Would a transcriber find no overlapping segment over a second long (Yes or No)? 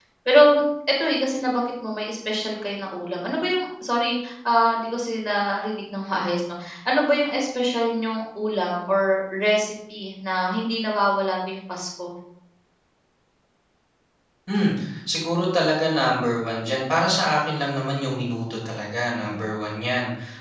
Yes